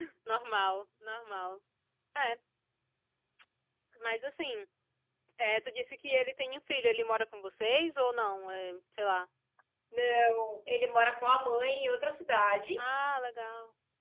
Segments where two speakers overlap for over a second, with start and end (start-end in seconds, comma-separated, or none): none